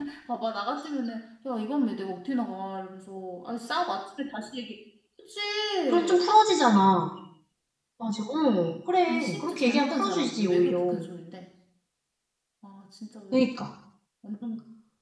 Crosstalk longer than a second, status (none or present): present